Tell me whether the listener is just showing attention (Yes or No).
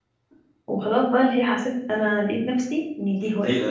No